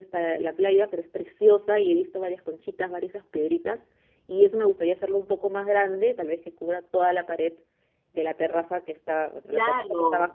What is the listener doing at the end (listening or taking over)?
listening